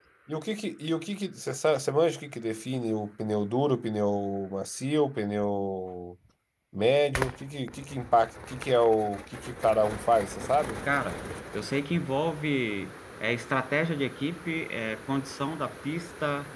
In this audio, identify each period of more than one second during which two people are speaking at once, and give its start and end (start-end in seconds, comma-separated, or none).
none